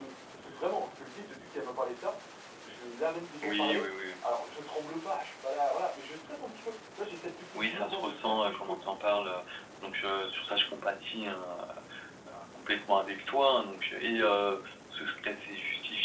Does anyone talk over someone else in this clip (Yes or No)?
Yes